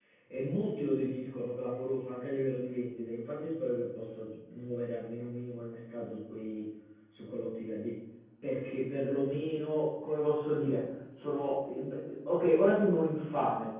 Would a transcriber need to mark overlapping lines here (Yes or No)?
No